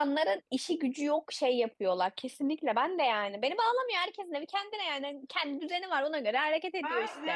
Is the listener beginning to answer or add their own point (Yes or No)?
Yes